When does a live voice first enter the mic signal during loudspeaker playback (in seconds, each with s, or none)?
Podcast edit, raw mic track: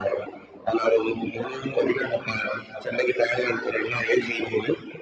none